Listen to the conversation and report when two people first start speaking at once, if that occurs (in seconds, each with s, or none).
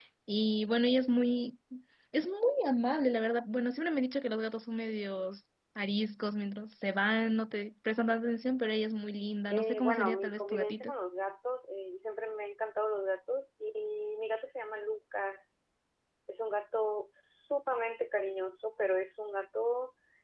9.5 s